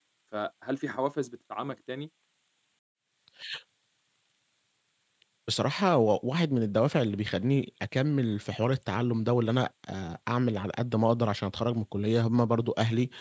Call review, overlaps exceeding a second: none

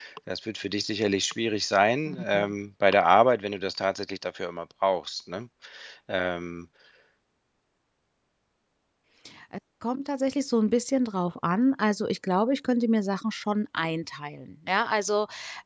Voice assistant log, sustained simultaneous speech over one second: none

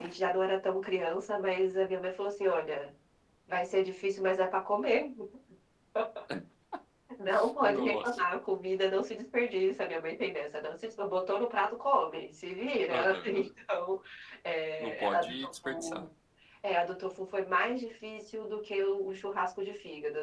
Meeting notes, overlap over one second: present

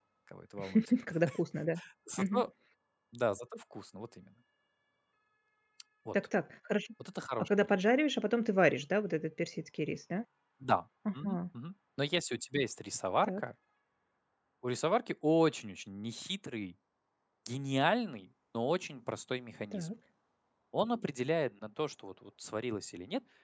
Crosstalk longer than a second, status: none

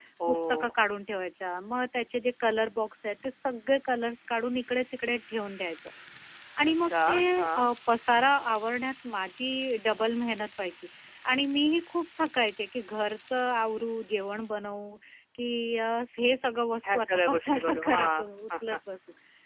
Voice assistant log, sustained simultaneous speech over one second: present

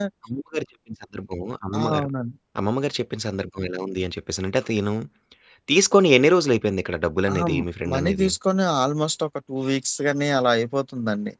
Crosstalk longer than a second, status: none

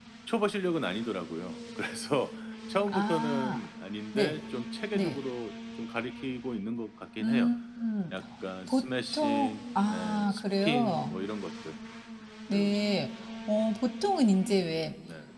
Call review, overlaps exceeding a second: present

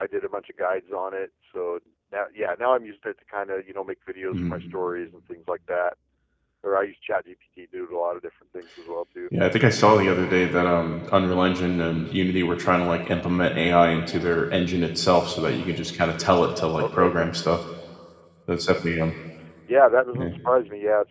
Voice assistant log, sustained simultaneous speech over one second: none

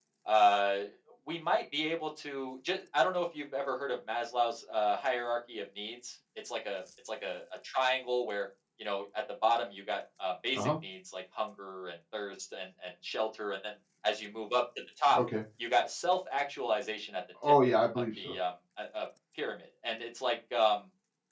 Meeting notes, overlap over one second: none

